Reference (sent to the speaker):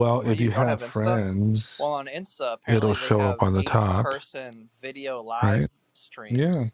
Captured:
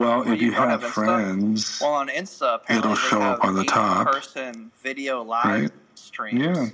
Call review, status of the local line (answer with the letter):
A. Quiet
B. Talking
A